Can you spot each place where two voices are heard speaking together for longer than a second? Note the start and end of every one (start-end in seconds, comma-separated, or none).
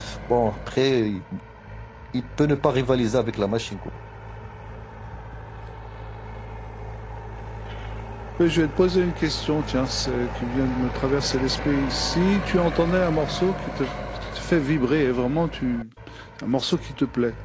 none